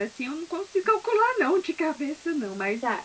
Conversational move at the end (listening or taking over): taking over